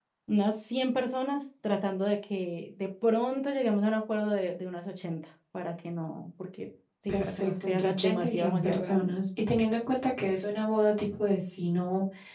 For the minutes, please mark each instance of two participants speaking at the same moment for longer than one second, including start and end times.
7.1-9.1

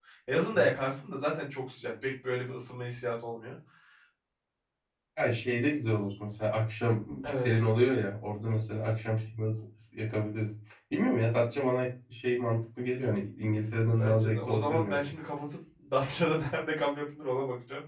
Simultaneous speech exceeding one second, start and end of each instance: 13.9-15.1

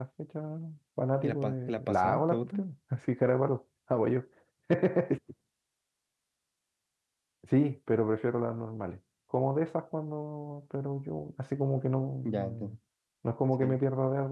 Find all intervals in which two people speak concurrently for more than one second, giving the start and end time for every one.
1.2-2.7

